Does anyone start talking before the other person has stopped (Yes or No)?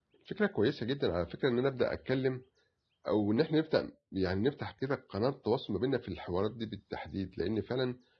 No